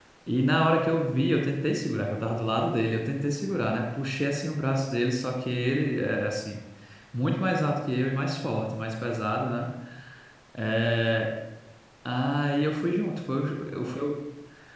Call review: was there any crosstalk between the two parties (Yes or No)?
No